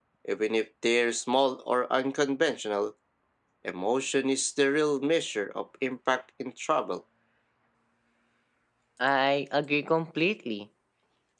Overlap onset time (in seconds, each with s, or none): none